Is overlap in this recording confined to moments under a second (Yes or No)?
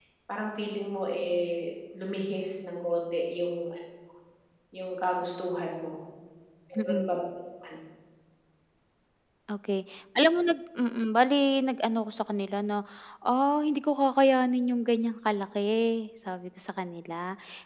Yes